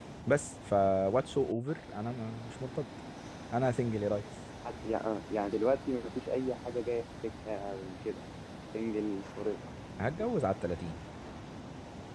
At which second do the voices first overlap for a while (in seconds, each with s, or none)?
none